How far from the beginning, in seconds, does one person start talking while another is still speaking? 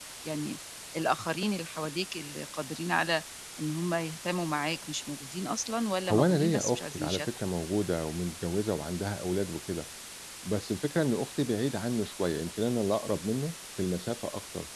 6 s

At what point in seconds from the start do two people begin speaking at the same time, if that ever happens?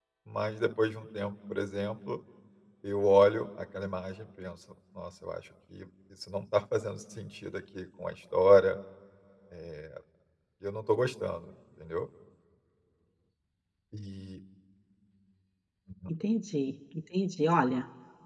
none

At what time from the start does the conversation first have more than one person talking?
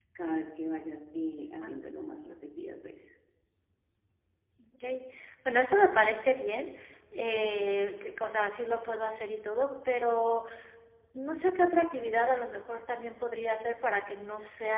none

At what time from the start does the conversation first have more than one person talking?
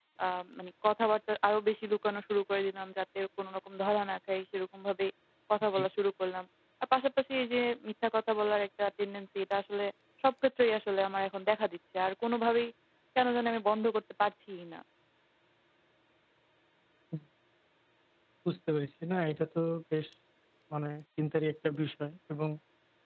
none

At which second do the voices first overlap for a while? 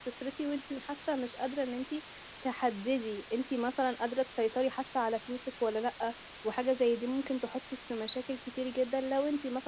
none

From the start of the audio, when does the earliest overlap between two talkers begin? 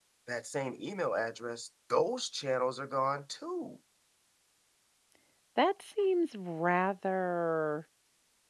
none

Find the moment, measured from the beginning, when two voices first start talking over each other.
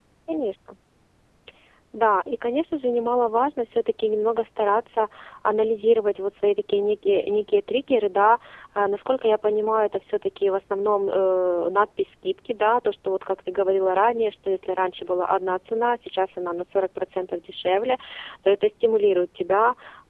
none

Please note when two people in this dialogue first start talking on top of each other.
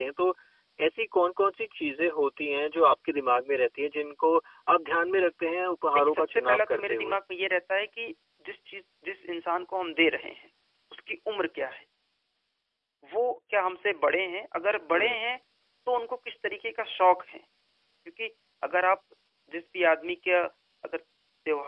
6 s

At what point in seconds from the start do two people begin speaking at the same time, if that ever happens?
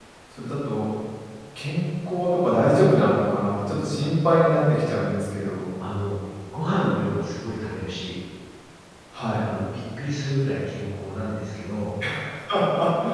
none

